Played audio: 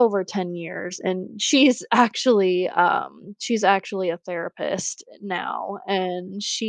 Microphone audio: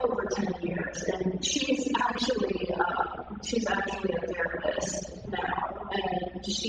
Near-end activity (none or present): none